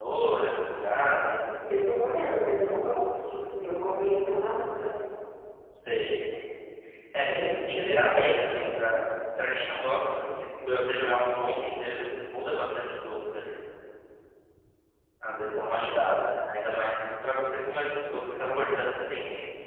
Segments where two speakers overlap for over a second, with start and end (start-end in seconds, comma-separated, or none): 7.3-8.7